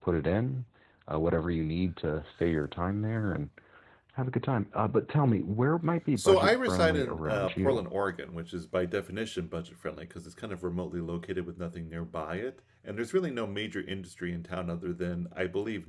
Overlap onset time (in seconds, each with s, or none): 6.2 s